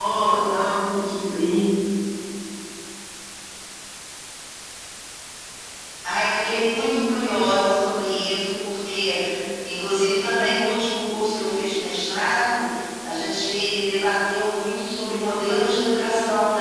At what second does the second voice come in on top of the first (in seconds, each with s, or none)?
none